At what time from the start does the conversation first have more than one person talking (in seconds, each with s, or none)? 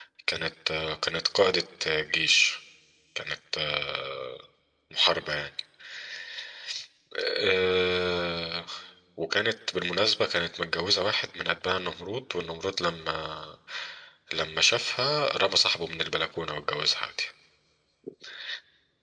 none